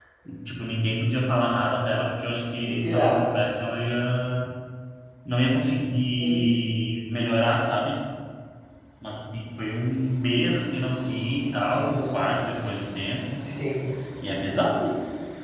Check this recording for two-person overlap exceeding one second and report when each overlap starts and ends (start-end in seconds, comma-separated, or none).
none